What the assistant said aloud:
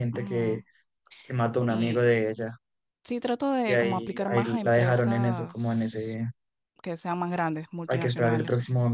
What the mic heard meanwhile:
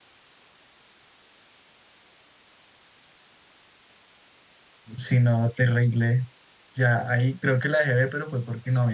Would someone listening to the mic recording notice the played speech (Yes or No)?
No